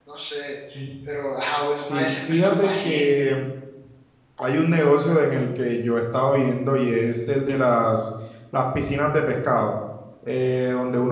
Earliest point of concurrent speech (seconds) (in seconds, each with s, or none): 1.8 s